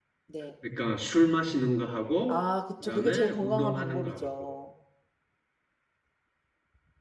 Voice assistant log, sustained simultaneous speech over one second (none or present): present